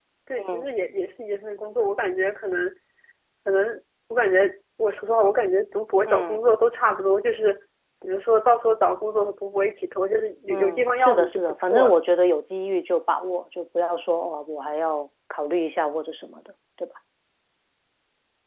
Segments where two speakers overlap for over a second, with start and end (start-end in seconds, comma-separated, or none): 10.5-11.9